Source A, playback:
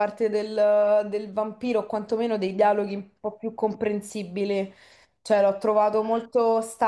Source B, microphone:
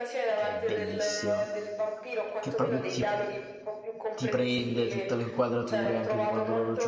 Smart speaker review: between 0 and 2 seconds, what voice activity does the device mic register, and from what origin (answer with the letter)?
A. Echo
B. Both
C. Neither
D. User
B